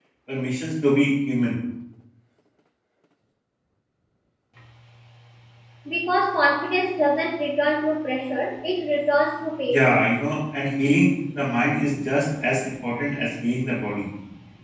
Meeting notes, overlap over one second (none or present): none